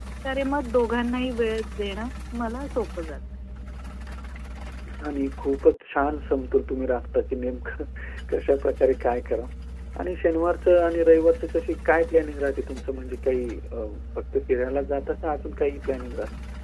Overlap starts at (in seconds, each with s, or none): none